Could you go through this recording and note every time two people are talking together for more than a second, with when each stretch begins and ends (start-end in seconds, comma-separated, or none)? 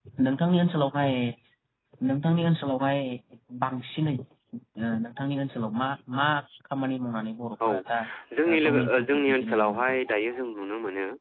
8.5-10.0